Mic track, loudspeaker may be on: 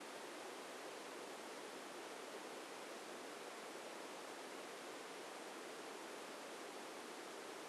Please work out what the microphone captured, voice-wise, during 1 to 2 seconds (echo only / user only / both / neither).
neither